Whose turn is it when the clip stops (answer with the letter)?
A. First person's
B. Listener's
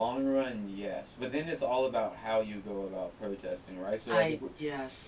A